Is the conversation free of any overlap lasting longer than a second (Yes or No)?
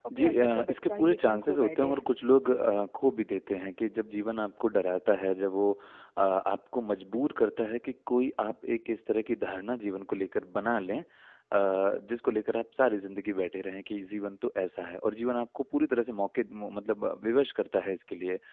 No